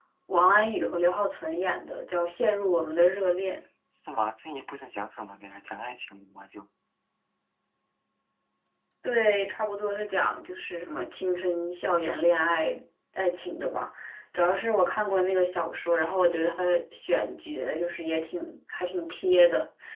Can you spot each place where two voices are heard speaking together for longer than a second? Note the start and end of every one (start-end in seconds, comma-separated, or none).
none